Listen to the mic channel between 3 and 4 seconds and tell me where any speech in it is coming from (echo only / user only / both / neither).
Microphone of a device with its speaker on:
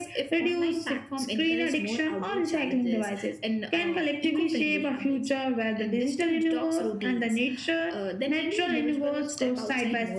echo only